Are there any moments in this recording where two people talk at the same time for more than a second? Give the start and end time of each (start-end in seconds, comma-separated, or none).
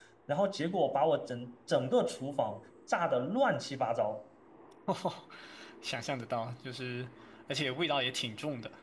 none